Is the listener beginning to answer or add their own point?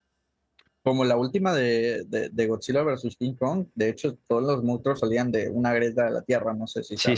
Yes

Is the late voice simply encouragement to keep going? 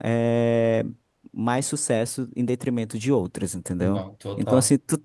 Yes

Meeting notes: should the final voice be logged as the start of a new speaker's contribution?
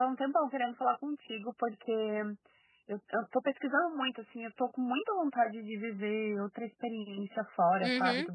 No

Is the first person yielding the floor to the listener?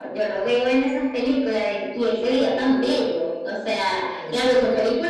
No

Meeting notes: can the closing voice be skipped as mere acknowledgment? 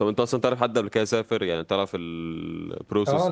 No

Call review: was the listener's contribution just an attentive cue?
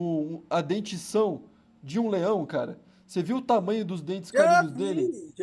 No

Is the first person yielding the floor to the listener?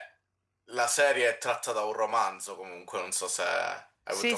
Yes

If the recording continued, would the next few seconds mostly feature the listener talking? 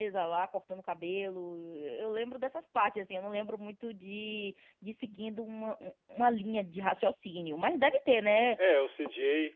Yes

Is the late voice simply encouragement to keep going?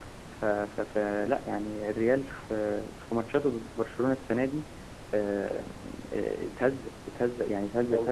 No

